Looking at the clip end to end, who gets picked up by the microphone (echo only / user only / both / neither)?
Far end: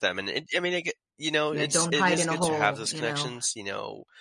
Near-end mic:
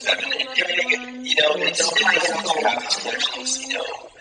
both